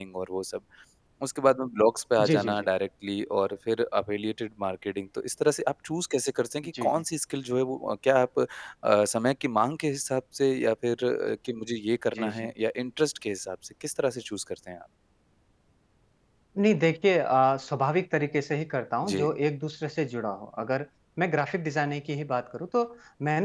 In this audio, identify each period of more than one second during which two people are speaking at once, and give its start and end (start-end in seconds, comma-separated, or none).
none